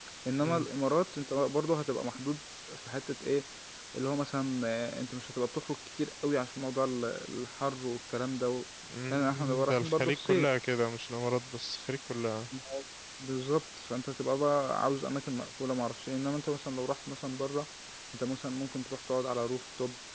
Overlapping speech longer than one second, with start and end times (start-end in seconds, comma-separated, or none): 9.1-10.5